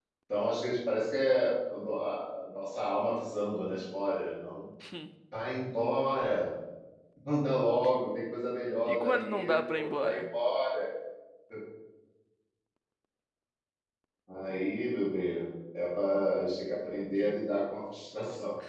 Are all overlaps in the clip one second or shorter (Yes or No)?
No